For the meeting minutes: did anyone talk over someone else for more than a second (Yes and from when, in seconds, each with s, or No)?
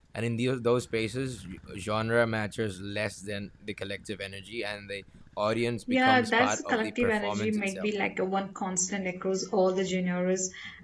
Yes, from 5.9 s